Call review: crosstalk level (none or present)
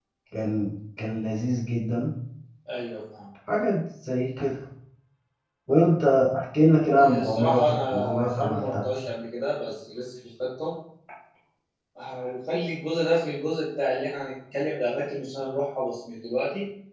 present